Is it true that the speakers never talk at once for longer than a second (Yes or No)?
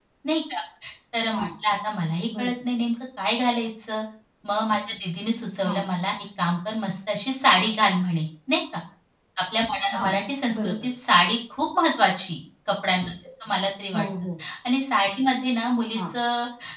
Yes